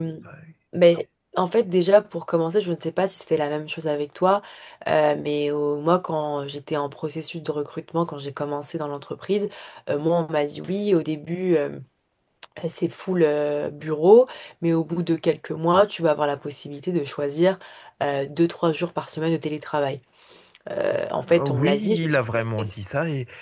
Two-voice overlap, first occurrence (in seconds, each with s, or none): 21.2 s